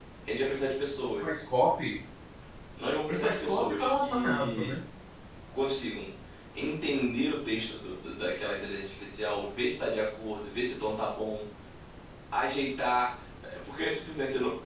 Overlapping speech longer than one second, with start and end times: 3.1-4.7

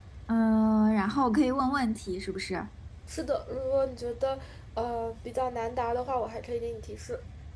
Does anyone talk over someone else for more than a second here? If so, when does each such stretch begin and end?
none

